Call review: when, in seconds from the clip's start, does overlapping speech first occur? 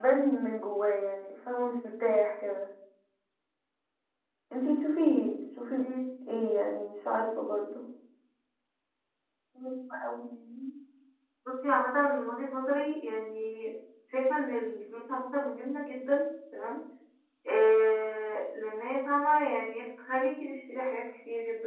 none

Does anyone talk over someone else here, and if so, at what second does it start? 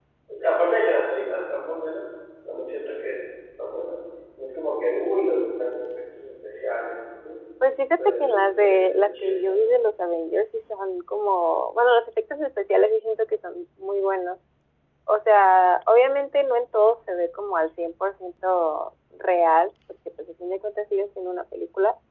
8.0 s

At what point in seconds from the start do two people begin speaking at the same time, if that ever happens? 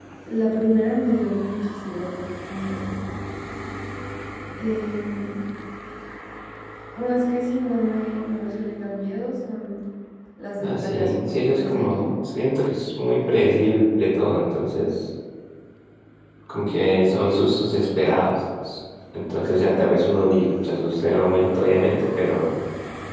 10.6 s

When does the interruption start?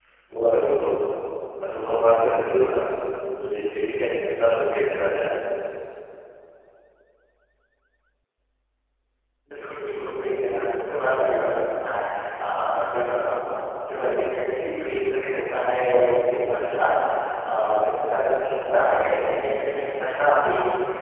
none

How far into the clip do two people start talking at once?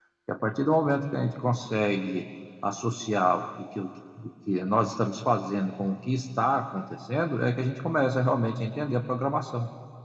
none

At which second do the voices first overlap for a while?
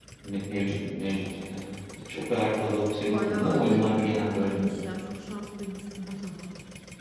3.1 s

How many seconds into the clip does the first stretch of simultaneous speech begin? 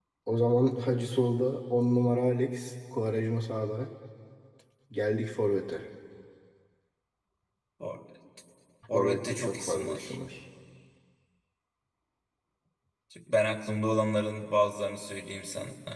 8.9 s

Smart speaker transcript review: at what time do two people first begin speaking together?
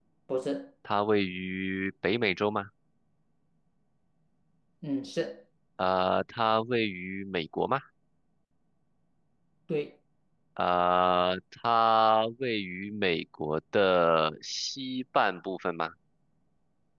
none

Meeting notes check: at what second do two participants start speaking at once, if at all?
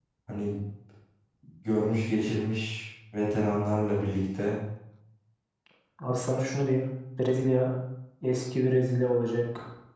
none

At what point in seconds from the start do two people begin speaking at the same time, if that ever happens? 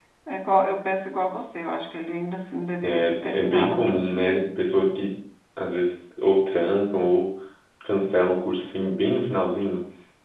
2.8 s

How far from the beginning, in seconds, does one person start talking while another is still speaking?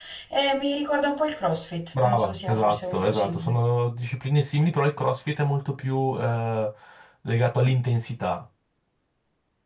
1.9 s

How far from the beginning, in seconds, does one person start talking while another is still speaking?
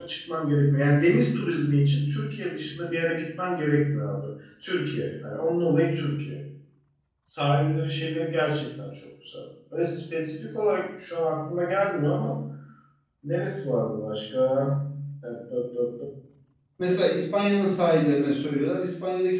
none

